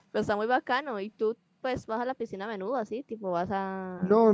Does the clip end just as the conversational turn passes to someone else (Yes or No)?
Yes